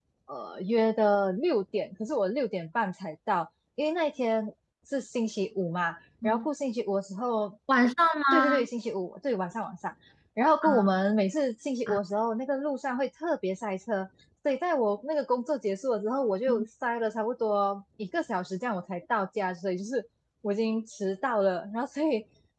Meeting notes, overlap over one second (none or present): none